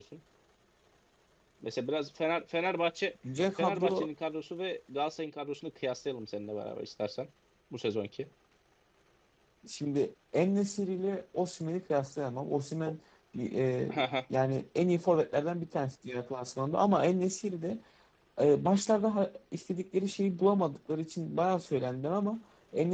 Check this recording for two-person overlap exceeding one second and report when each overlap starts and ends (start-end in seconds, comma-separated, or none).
none